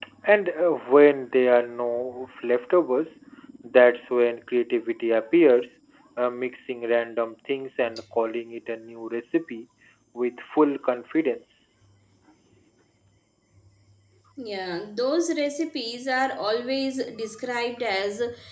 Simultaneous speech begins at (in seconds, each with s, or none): none